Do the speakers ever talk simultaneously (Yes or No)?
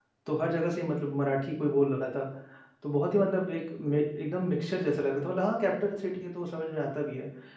No